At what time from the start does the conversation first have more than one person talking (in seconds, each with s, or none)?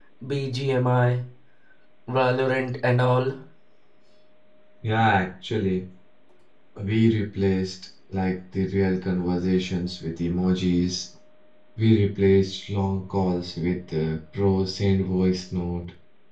none